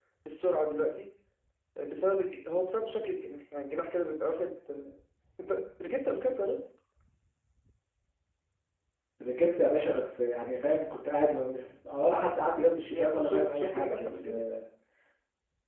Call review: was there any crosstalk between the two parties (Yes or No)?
Yes